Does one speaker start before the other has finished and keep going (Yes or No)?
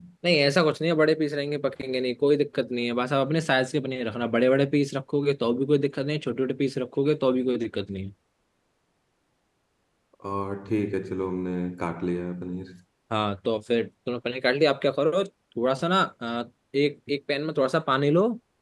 No